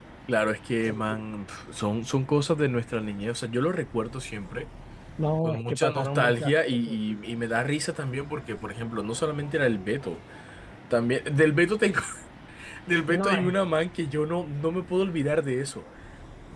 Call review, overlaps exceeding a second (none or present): present